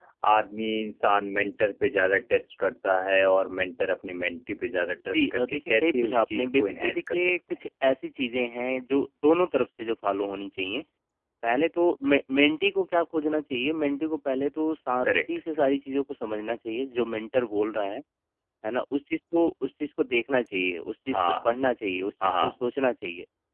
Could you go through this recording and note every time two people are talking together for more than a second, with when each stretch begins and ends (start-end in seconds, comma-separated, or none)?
5.1-7.3